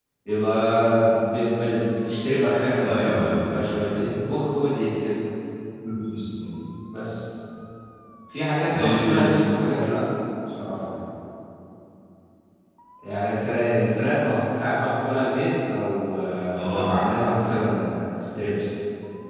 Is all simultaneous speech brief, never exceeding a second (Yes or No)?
No